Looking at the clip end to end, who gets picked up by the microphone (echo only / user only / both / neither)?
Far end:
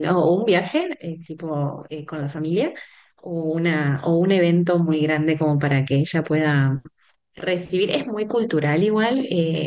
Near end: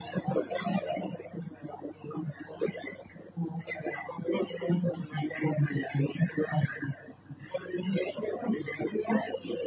echo only